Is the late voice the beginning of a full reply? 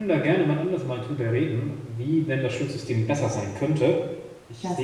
No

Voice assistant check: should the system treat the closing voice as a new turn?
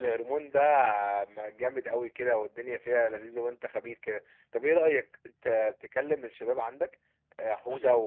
No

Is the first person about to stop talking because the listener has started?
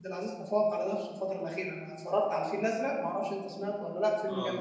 Yes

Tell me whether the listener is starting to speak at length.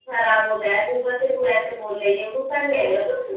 Yes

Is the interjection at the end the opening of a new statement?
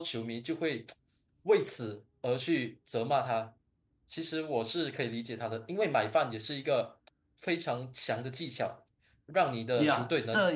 Yes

